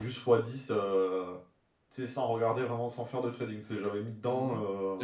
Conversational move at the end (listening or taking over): taking over